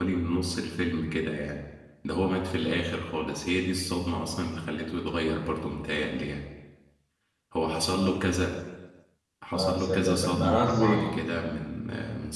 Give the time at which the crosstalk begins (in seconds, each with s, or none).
9.5 s